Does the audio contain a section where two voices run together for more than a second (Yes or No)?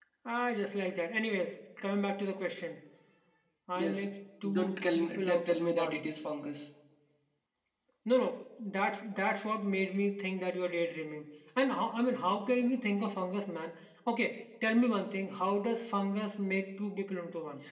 Yes